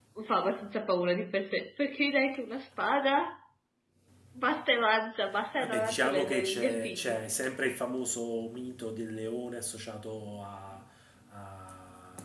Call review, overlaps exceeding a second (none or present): present